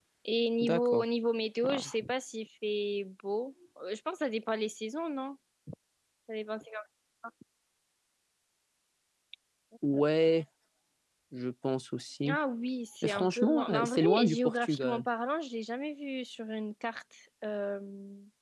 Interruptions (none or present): present